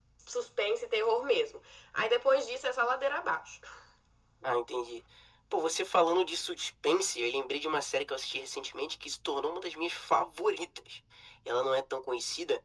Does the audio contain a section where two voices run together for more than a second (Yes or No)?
No